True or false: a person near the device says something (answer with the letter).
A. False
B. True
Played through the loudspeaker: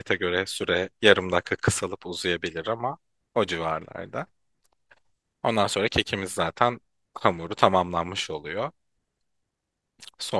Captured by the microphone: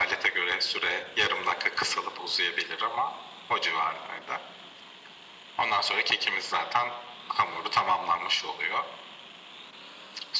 A